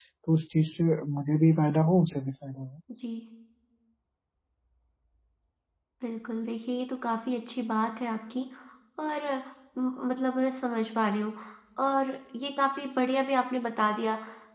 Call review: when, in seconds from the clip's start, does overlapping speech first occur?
none

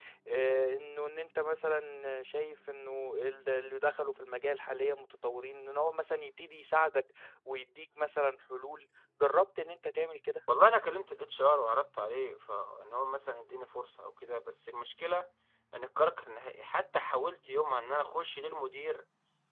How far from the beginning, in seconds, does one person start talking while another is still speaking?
none

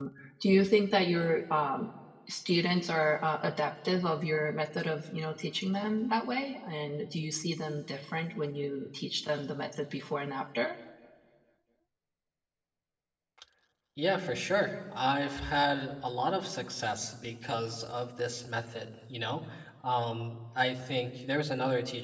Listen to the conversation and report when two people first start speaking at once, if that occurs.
none

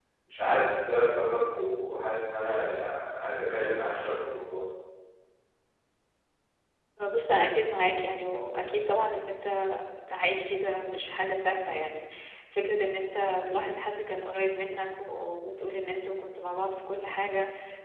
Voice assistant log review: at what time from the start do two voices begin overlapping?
none

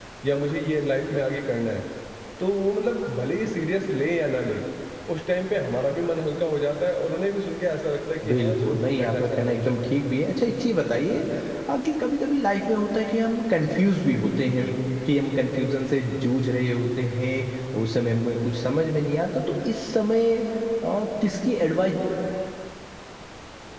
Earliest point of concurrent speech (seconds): 8.2 s

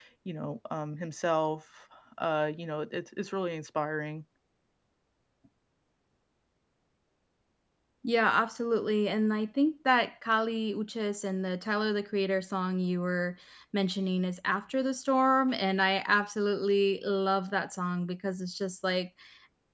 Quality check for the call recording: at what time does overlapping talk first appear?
none

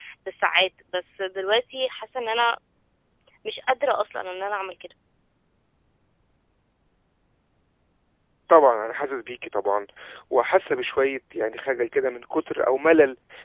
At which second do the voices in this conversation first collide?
none

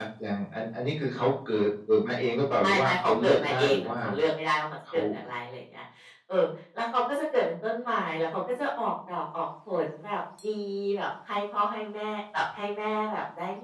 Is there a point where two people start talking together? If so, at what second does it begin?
2.6 s

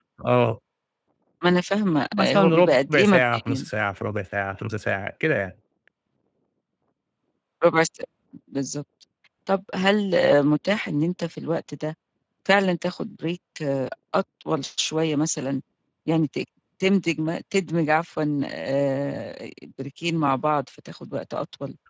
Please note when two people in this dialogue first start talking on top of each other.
2.1 s

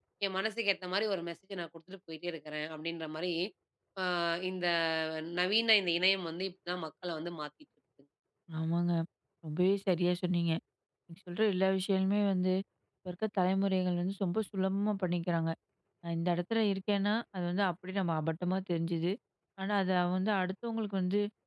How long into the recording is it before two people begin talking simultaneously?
none

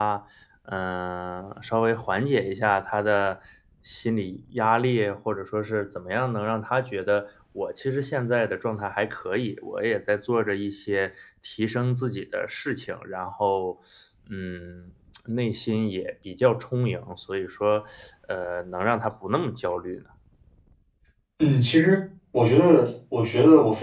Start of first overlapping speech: none

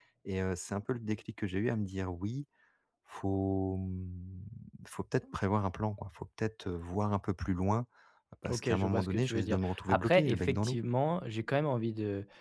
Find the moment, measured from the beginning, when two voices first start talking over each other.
8.5 s

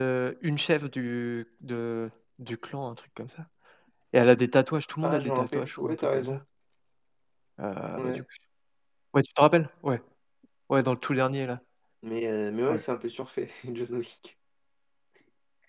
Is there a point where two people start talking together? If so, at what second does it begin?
5.0 s

